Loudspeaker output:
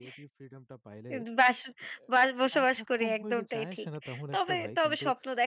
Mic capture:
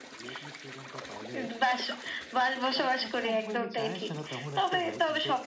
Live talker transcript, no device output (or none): none